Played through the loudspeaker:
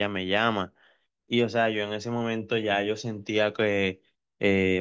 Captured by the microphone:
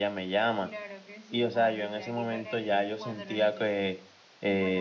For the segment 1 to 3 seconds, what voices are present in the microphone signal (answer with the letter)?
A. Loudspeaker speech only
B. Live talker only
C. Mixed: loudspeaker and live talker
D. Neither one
C